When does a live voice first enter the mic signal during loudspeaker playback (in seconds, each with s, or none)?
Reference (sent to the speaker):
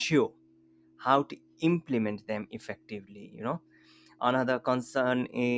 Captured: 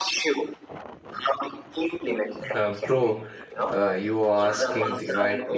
2.5 s